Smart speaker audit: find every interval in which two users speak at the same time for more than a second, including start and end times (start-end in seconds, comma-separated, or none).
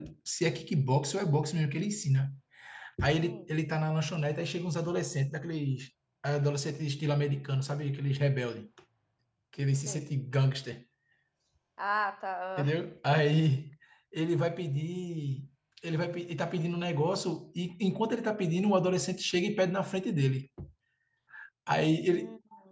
none